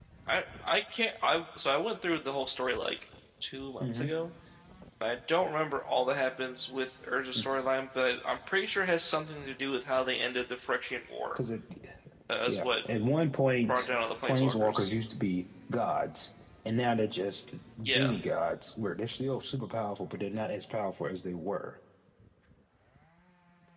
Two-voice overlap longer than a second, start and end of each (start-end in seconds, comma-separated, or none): 13.7-14.9